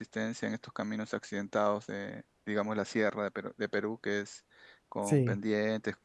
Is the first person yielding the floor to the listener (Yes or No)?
No